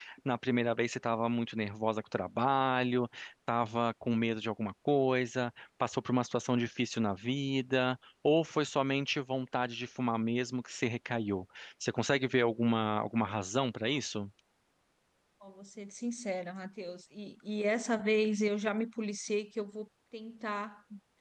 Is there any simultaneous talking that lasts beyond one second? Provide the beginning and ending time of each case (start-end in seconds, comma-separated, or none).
none